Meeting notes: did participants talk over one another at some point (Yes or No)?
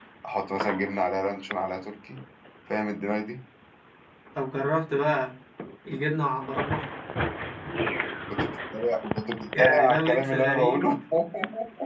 Yes